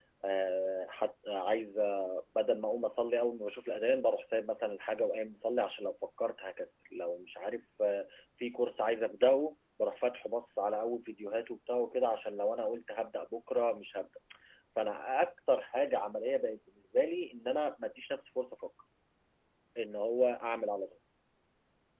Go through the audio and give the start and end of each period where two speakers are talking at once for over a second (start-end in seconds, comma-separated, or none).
none